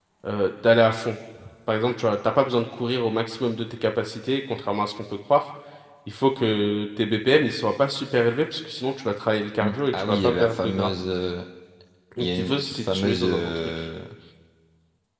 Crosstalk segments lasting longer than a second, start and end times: 9.6-10.9, 12.2-13.8

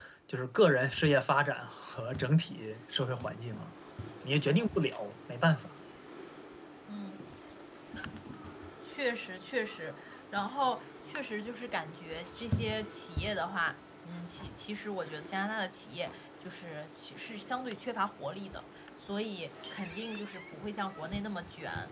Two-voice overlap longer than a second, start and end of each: none

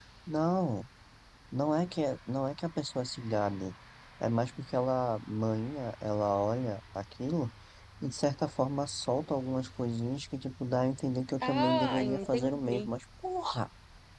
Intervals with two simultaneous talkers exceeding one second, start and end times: 11.4-12.9

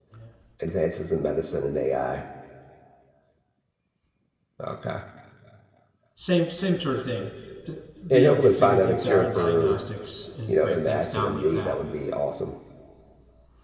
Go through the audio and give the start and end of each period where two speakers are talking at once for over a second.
8.1-9.8, 10.5-11.8

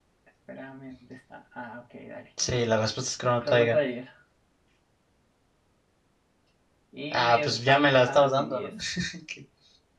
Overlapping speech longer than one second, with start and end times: 7.1-8.7

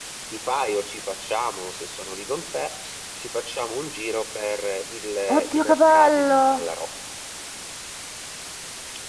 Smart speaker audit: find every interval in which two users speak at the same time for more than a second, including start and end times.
5.3-6.7

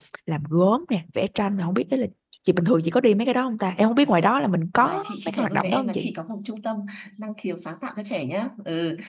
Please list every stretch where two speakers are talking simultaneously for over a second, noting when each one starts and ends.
4.8-6.1

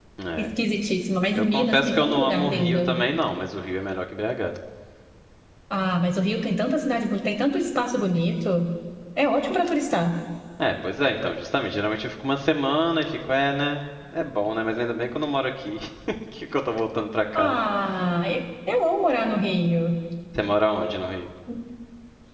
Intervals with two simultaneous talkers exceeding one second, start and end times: 1.4-3.0

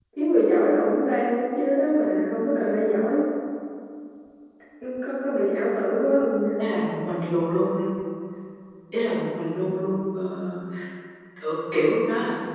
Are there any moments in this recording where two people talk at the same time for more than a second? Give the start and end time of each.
none

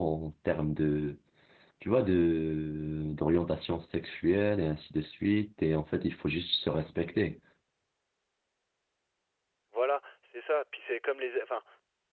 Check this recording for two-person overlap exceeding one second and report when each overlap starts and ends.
none

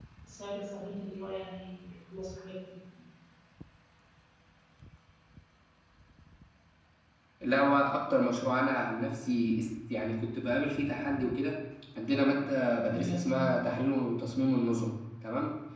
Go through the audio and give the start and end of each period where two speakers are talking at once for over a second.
none

